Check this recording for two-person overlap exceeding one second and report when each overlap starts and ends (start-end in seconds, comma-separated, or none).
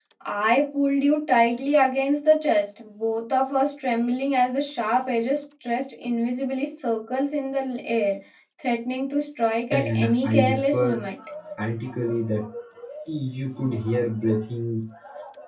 9.7-11.0